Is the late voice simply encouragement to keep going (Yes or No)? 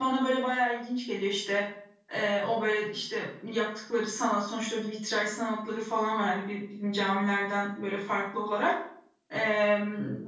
Yes